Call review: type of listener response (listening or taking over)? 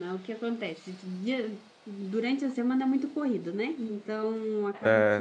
listening